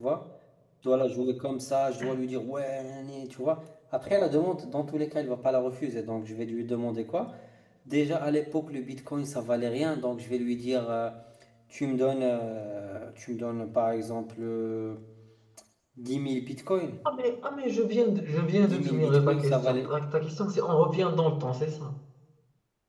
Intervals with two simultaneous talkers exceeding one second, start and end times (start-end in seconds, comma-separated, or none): 18.6-19.9